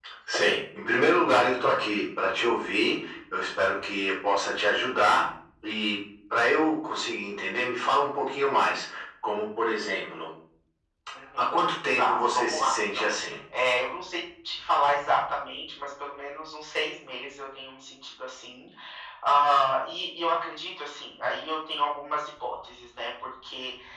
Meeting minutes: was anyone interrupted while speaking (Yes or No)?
Yes